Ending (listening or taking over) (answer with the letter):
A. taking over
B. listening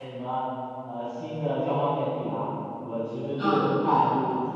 B